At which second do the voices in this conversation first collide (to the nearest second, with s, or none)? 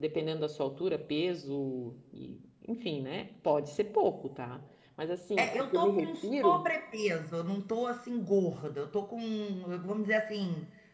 5 s